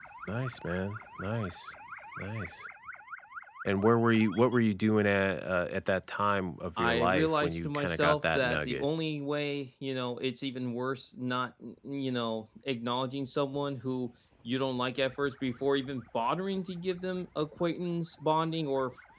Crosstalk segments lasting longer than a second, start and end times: 6.8-8.8

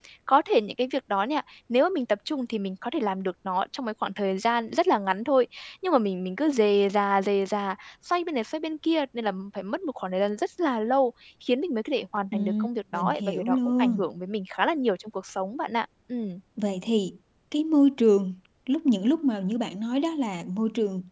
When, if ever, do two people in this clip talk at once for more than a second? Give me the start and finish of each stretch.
12.3-14.0

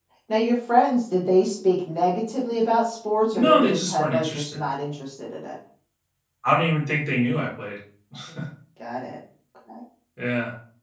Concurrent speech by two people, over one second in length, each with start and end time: 3.3-4.6

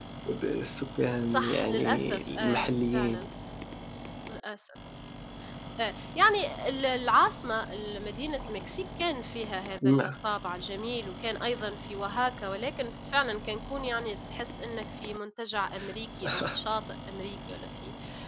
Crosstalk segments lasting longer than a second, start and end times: 1.3-3.2

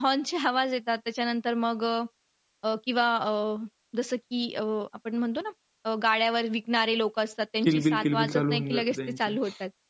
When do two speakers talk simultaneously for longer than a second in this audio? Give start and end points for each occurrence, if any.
7.7-9.3

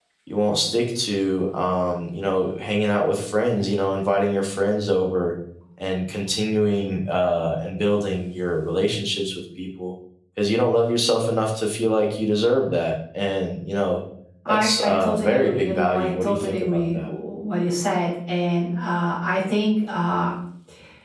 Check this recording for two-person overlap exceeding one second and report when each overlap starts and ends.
14.5-17.1

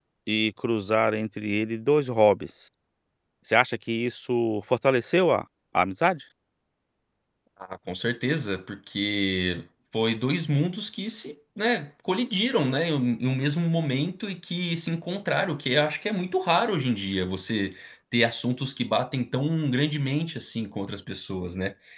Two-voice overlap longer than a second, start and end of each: none

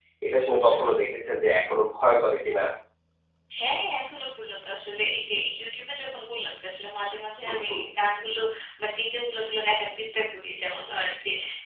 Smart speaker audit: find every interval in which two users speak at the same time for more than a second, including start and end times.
none

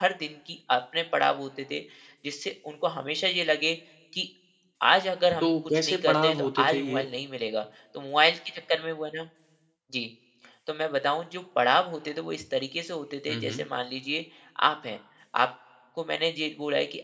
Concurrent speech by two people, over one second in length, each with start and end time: 5.4-7.0

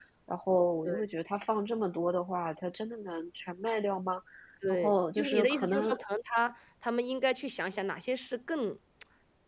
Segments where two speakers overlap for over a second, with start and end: 4.7-5.9

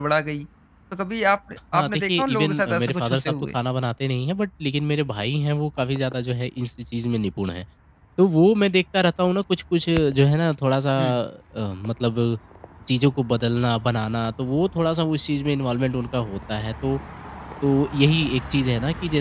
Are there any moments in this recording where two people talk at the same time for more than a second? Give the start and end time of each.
1.7-3.6

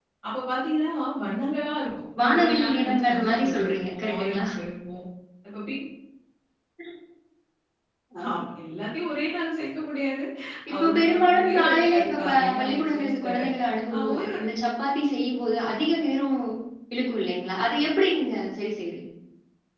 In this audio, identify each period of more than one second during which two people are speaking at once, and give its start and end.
2.2-4.4, 10.8-13.4

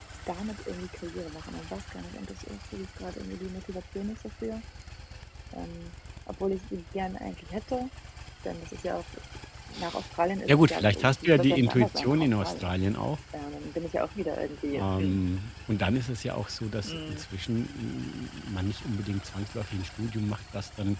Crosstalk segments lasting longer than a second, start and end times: 10.5-12.7

